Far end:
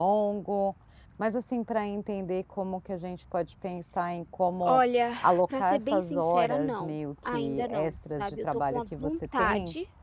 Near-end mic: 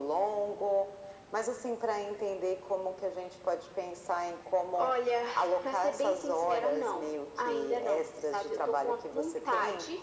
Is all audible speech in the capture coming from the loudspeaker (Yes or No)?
Yes